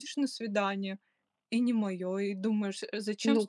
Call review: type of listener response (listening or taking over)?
taking over